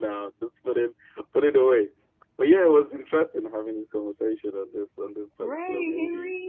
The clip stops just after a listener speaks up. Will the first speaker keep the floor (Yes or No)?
No